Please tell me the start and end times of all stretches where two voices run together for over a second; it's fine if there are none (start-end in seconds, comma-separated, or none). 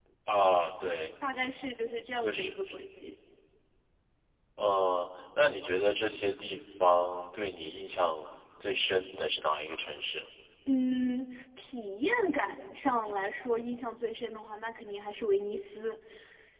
none